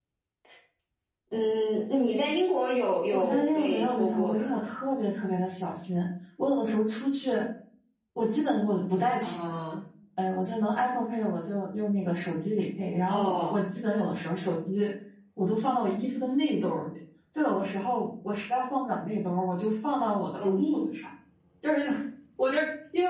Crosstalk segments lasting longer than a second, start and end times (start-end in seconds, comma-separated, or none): 3.1-4.6